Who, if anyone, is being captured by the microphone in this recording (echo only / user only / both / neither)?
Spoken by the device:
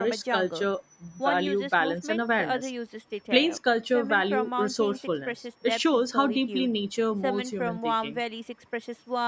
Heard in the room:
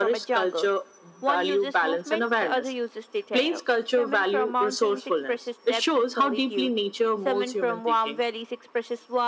echo only